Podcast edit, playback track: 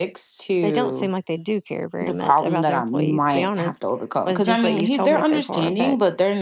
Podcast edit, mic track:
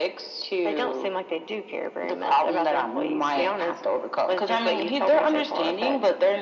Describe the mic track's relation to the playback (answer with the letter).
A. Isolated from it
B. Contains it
B